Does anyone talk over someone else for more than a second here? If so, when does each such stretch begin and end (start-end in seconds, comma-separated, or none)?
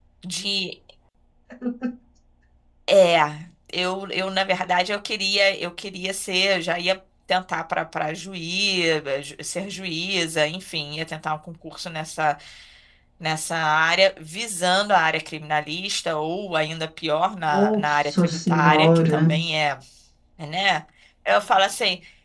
17.5-19.3